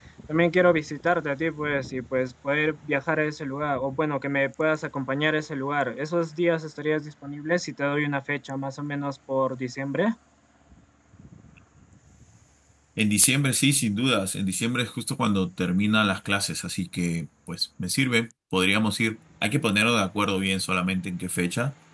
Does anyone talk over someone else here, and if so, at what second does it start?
none

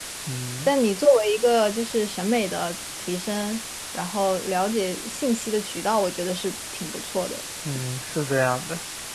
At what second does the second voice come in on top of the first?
none

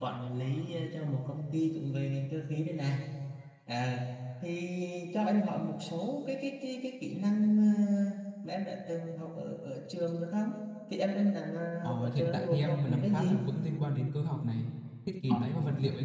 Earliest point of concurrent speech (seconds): 11.8 s

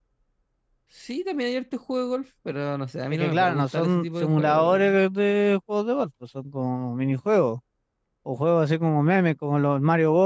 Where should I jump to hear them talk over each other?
3.1 s

